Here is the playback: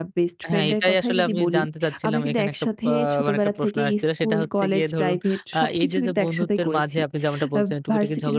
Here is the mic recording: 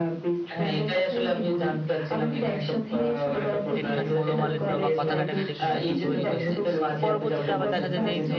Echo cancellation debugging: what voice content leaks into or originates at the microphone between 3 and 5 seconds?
both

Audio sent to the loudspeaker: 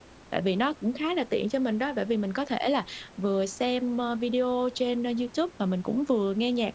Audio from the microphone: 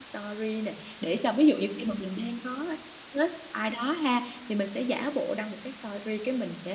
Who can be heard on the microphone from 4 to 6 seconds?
user only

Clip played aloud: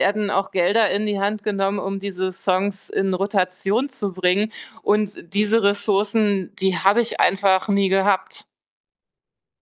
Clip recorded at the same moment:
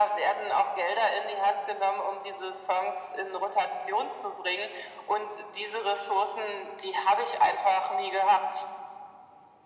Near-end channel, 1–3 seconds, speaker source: echo only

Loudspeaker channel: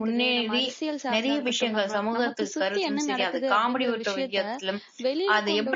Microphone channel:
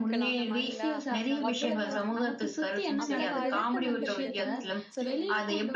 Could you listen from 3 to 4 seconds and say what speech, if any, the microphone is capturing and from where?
both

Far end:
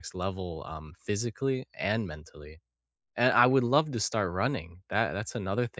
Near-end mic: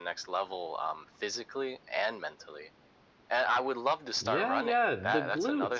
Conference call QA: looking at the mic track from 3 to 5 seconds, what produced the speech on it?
both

